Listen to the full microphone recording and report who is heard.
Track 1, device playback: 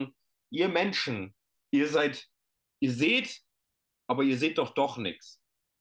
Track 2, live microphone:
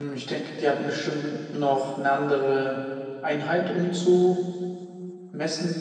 user only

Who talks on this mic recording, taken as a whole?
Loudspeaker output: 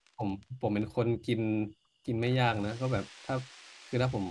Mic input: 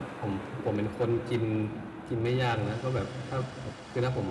echo only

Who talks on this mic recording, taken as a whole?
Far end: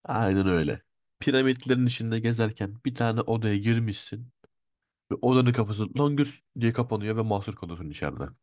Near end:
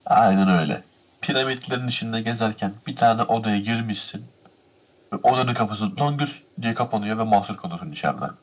echo only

